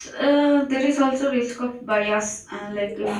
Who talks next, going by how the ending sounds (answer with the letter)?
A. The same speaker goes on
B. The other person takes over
A